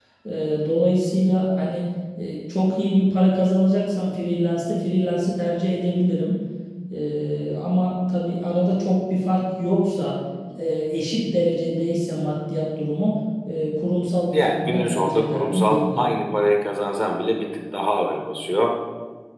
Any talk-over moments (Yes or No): Yes